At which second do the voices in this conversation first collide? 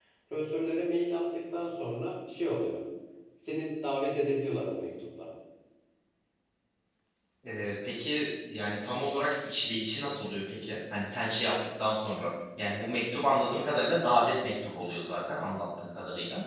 none

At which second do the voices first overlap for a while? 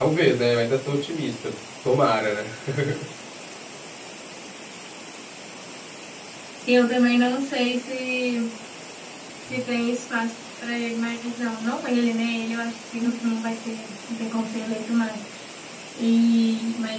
none

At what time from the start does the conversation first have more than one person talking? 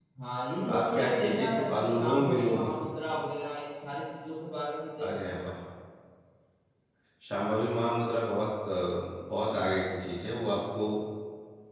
1 s

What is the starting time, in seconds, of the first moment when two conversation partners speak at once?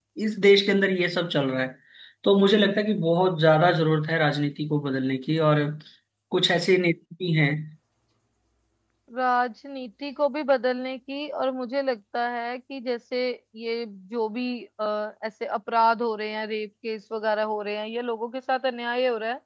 none

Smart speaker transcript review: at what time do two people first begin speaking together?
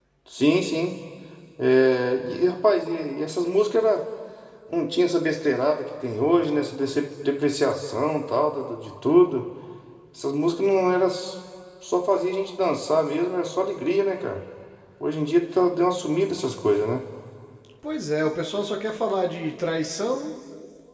none

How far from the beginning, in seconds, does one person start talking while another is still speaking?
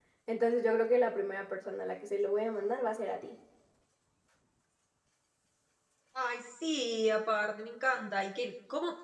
none

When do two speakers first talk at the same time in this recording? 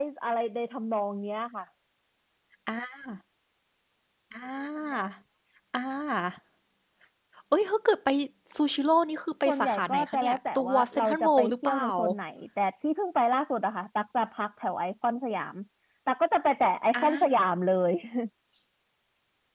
9 s

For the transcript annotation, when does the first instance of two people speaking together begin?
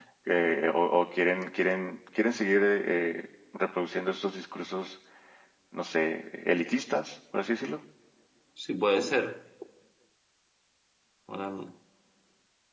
none

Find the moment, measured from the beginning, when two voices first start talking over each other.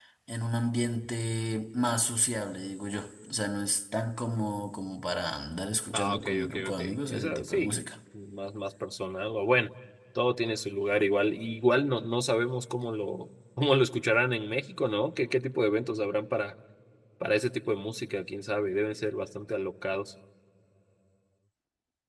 6 s

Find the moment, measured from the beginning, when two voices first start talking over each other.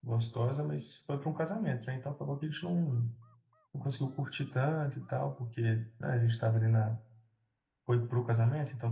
none

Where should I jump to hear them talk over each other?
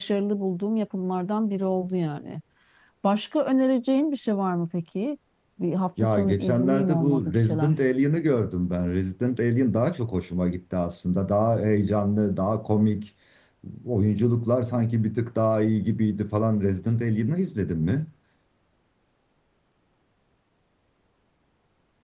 6 s

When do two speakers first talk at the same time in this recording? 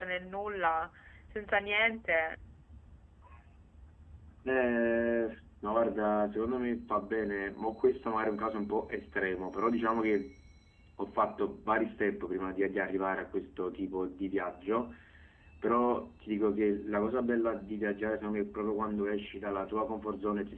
none

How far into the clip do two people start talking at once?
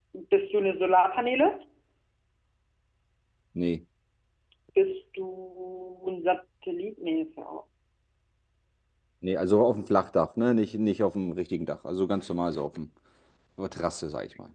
none

